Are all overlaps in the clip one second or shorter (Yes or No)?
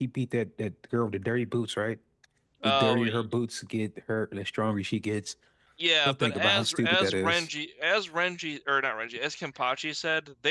No